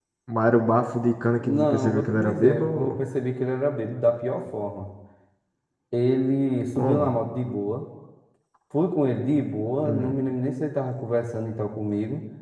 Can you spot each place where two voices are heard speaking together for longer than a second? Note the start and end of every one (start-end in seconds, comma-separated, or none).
1.4-3.0